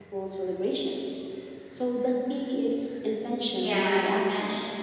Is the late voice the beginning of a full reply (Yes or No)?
Yes